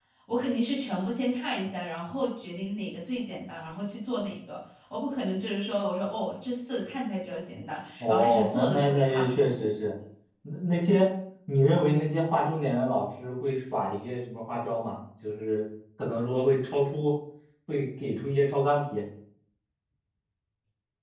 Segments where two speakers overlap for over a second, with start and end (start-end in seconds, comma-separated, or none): 8.0-9.7